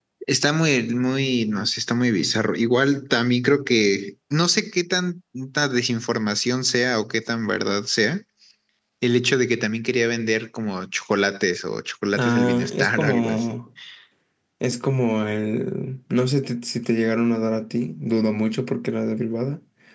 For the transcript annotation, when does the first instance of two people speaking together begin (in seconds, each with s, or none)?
12.1 s